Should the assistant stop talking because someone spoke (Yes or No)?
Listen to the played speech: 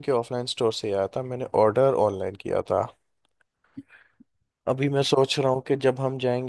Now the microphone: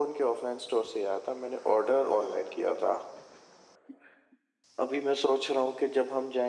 No